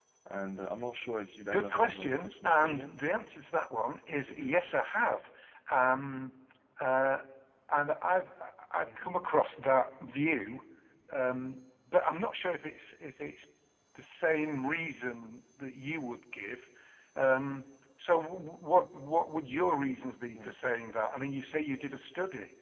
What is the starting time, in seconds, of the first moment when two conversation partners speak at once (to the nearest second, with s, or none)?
2 s